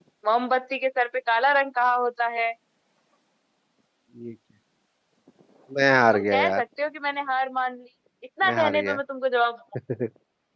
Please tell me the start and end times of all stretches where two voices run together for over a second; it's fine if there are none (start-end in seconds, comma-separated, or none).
none